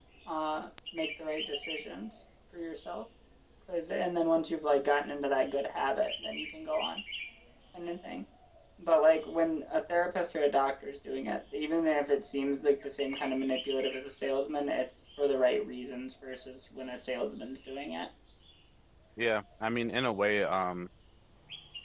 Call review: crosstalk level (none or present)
none